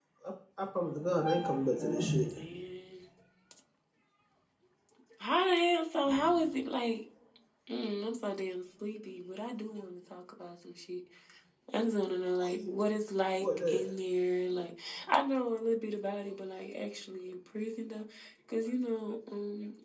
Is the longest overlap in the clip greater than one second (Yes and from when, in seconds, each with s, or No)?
No